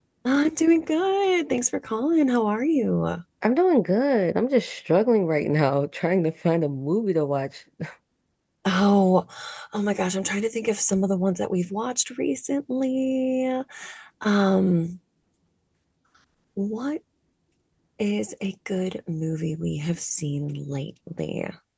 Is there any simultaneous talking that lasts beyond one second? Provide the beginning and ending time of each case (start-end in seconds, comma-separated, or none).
none